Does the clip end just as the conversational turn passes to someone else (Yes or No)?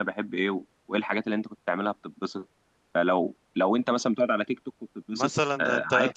Yes